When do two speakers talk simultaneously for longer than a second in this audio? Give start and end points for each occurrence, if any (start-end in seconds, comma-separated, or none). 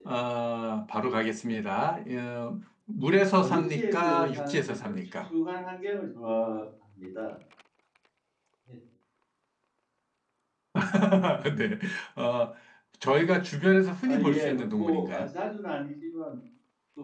3.4-5.3, 14.0-15.2